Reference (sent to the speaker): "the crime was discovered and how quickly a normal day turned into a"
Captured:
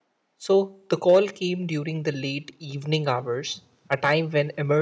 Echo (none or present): none